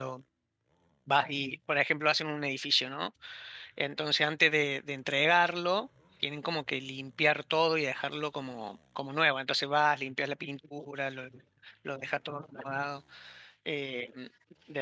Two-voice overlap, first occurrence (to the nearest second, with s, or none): none